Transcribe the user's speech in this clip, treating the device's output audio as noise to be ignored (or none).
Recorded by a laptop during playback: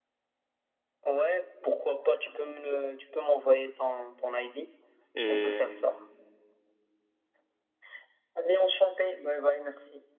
Et